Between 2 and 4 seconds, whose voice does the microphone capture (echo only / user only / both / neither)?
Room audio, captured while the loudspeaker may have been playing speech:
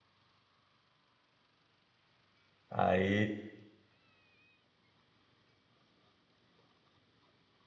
user only